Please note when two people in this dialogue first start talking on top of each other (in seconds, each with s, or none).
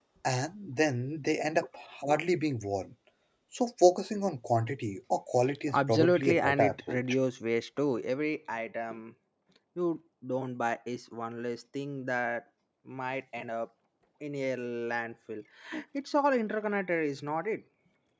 5.7 s